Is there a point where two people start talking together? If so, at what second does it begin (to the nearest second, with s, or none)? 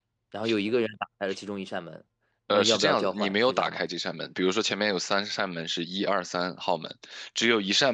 2 s